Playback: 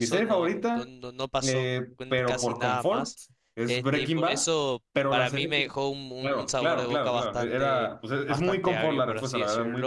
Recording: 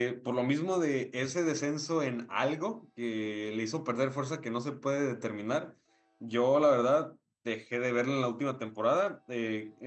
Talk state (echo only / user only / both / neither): user only